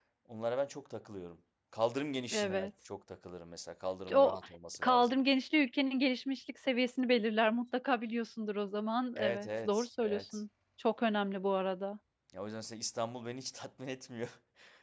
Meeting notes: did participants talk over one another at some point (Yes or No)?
Yes